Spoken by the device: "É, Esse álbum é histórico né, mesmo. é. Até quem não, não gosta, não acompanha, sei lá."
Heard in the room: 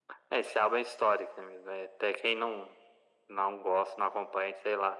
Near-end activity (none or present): none